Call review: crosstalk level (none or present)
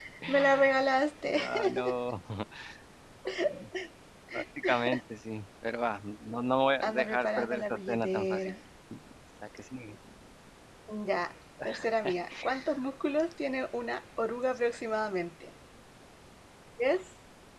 present